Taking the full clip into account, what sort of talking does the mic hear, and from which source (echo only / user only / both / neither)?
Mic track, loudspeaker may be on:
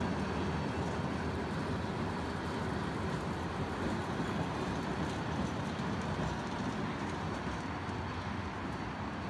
neither